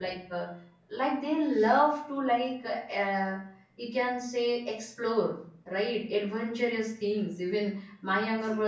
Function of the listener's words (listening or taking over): listening